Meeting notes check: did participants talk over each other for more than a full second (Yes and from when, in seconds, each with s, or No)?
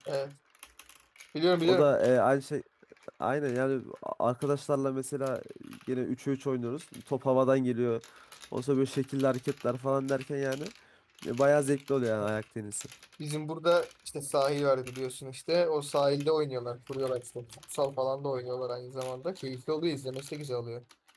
No